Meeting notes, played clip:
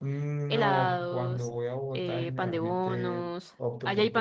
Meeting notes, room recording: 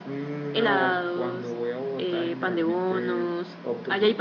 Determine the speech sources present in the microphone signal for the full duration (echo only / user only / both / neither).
echo only